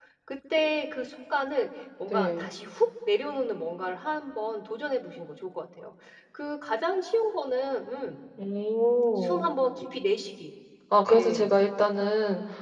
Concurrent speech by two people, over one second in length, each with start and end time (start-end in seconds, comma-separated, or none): none